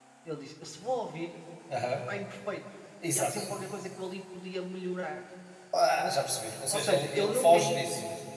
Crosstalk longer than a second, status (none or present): present